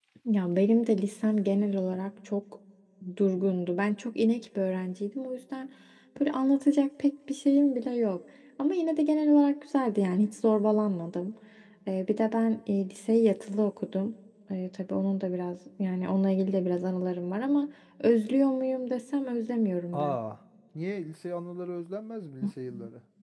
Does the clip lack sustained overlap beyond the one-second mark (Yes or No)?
Yes